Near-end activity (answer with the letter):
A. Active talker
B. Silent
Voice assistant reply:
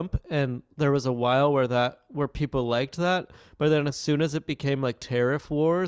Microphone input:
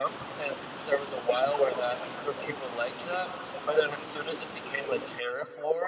B